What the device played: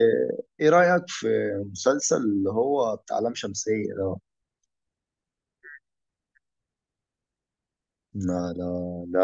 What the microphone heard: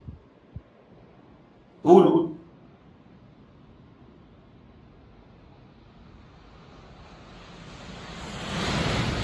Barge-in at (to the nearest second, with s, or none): 2 s